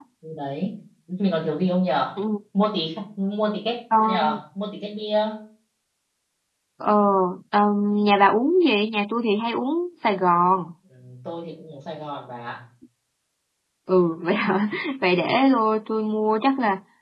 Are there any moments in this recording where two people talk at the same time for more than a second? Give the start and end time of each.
none

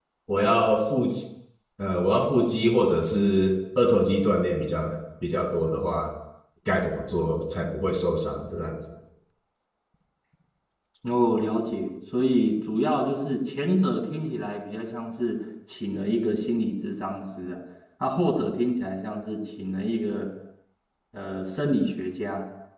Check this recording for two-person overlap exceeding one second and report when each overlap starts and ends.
none

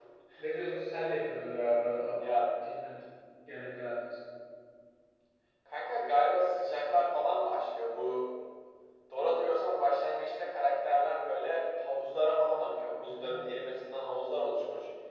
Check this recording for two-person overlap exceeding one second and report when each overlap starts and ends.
none

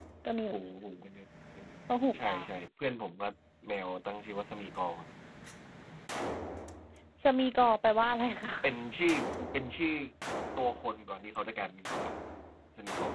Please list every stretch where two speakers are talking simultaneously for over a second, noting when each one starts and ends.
none

